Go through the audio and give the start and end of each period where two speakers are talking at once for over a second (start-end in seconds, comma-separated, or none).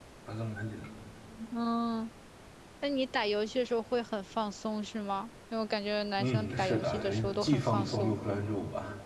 6.2-8.2